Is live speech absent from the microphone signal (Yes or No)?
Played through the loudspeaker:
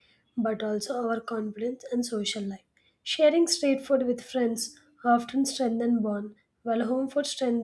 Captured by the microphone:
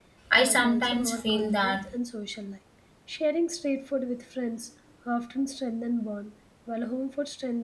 No